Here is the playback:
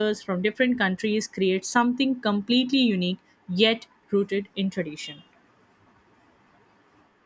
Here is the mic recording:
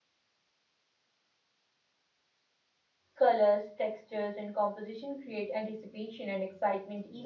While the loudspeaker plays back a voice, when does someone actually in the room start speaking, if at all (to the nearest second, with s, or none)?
3 s